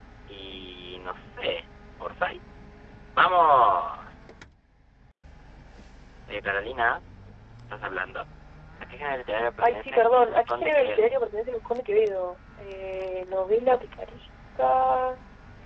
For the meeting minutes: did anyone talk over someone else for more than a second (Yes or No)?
Yes